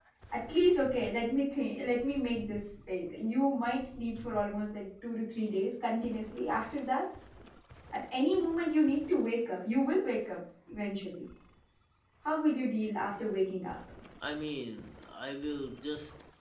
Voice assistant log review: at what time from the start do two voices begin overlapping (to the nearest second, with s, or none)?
none